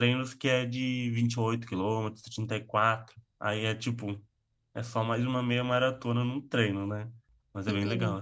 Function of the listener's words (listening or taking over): taking over